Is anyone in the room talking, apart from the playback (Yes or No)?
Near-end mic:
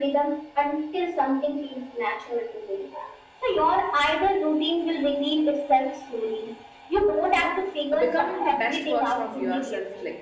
Yes